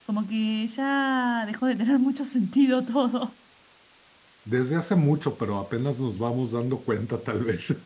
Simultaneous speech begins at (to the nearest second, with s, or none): none